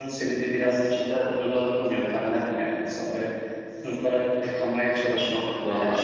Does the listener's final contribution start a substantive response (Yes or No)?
No